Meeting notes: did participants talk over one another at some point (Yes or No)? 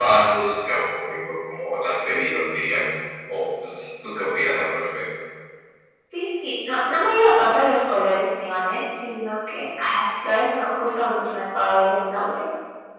No